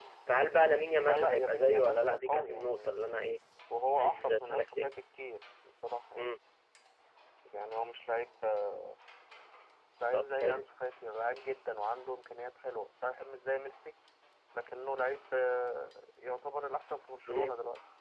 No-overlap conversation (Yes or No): No